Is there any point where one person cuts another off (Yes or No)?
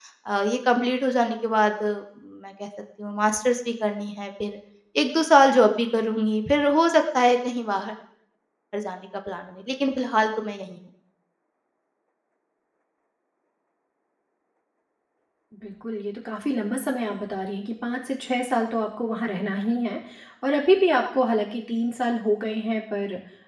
No